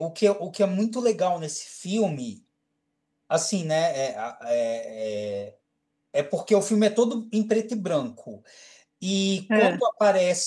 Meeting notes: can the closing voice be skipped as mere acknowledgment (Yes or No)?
Yes